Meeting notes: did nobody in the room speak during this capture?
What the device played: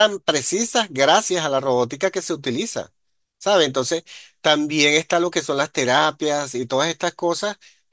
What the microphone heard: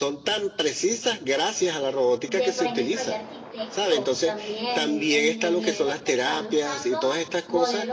No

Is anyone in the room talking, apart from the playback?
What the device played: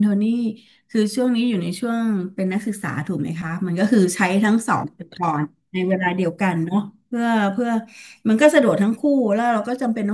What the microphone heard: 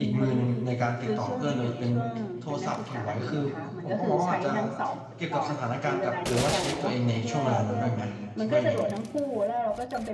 Yes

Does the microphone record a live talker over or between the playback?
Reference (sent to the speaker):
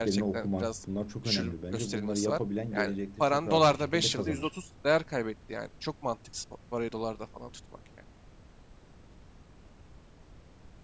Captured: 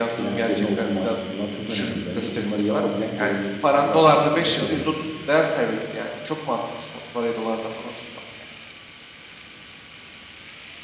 No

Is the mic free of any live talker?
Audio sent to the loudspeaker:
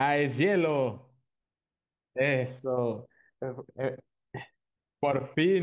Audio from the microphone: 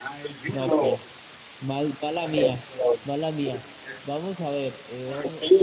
No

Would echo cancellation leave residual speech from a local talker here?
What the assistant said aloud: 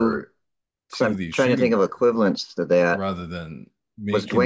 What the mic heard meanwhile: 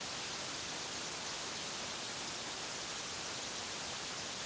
No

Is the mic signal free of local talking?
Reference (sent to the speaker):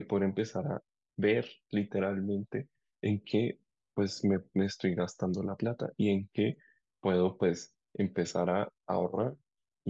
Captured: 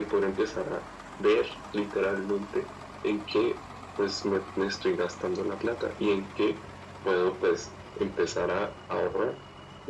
Yes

